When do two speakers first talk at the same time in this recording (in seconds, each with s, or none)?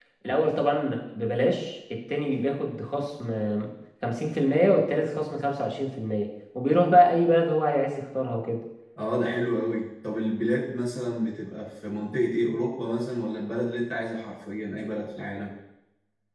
none